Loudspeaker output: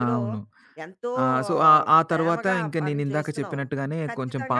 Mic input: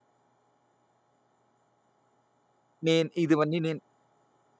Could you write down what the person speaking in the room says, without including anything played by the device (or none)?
నేను ఇదివన్నీ నేను